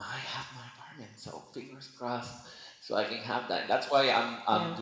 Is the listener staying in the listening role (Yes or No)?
Yes